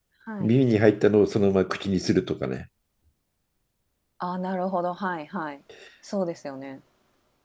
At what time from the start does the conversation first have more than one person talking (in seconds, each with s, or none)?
none